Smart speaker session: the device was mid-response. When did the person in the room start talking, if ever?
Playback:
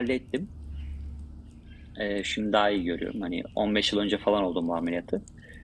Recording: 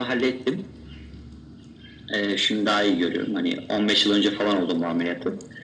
none

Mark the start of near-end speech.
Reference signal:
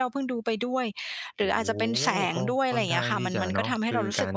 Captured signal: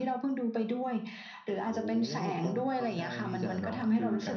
none

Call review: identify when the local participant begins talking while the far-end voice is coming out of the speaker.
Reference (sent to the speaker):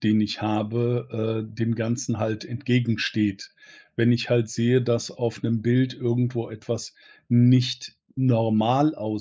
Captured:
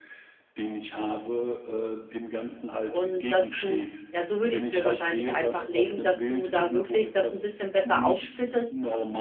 3 s

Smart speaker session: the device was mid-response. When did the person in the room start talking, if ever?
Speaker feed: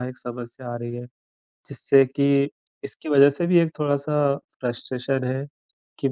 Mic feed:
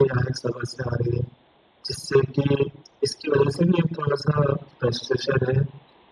none

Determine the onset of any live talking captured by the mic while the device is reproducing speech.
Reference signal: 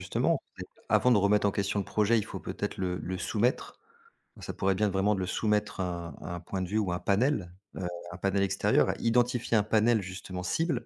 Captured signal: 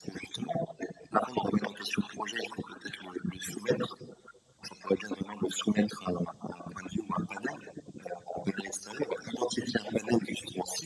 none

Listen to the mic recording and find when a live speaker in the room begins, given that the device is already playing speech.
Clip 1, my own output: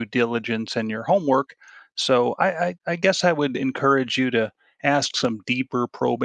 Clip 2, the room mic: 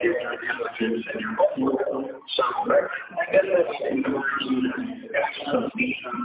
none

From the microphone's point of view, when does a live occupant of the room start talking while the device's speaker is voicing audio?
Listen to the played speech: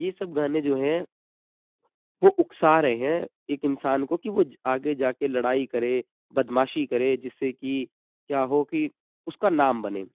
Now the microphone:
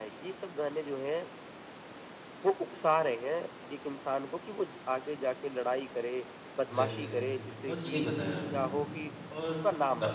7 s

